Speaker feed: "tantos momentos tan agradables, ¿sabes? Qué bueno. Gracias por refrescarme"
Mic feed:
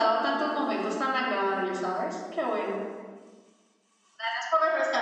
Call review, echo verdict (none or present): present